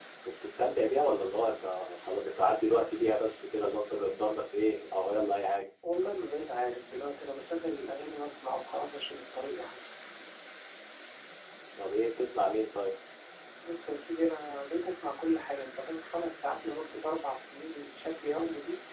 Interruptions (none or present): none